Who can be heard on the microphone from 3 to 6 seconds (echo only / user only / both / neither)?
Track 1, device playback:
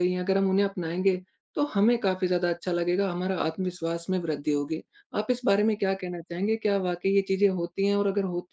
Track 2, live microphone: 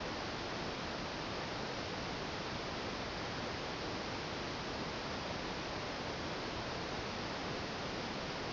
neither